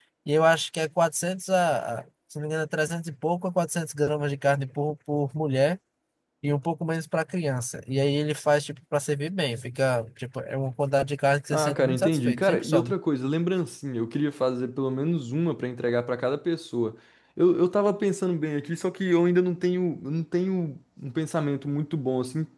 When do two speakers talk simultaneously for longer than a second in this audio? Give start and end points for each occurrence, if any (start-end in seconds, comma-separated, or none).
11.5-12.9